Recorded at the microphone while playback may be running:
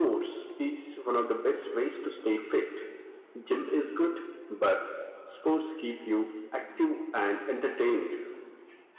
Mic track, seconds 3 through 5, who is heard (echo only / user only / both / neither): echo only